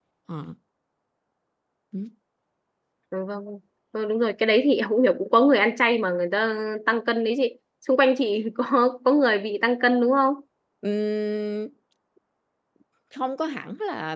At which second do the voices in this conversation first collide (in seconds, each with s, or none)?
none